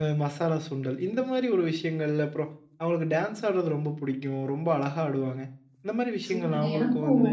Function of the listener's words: taking over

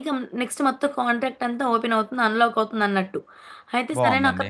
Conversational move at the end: listening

